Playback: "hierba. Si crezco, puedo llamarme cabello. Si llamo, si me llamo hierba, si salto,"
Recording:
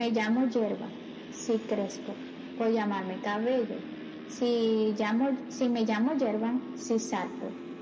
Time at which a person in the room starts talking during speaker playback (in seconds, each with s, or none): none